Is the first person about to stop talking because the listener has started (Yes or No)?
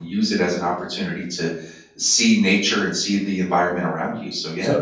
Yes